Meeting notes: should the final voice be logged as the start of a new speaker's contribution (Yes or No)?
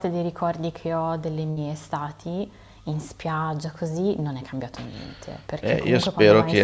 Yes